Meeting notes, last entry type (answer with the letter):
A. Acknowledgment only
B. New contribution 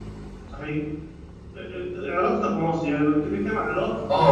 B